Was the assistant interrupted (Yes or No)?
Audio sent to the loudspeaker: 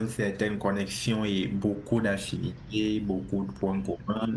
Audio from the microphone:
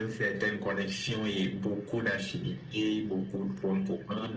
No